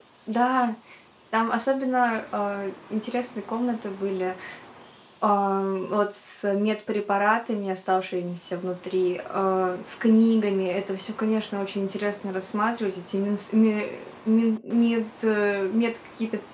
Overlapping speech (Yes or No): No